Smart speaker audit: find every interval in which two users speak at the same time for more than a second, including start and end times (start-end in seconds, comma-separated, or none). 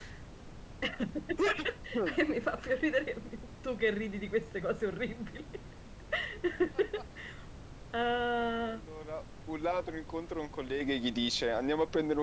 none